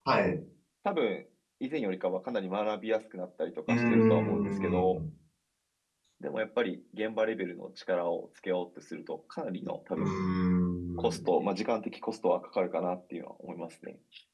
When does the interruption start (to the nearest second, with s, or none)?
4 s